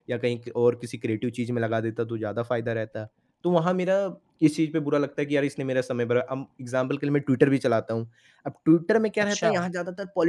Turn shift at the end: No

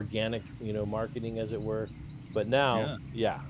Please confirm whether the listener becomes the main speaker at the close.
No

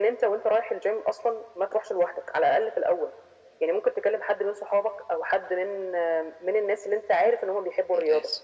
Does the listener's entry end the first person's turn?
No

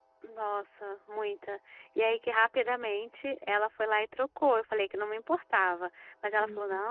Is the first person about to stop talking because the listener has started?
No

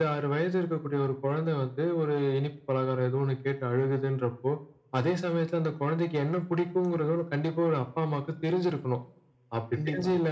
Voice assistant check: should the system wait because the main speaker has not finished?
Yes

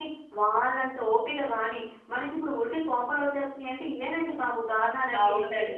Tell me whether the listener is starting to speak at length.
Yes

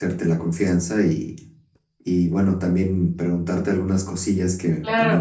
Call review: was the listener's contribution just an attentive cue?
Yes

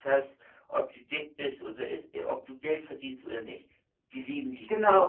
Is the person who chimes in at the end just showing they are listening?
No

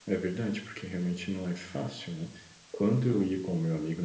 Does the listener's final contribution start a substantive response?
No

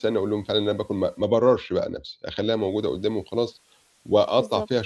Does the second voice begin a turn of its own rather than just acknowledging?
No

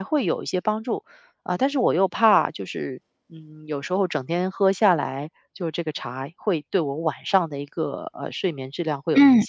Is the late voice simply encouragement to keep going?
No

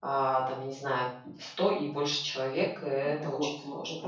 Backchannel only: No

